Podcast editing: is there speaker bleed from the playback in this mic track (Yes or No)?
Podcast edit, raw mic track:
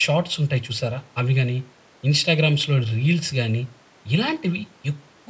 No